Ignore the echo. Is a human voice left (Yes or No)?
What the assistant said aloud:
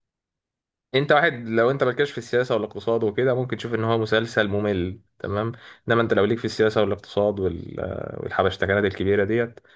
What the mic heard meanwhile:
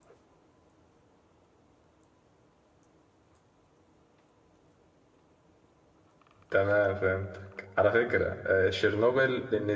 Yes